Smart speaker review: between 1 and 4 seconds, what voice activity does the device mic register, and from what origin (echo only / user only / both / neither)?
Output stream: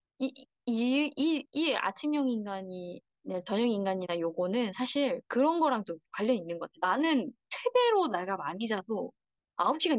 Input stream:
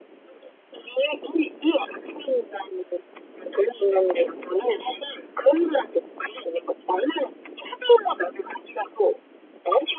echo only